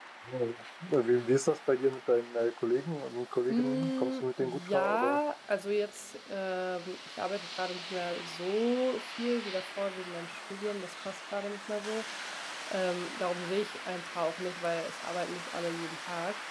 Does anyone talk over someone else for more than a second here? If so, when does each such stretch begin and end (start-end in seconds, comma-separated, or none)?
3.5-5.2